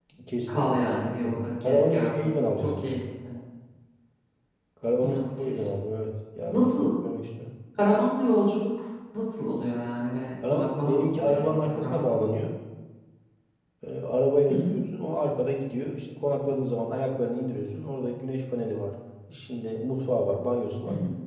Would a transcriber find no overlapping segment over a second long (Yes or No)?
No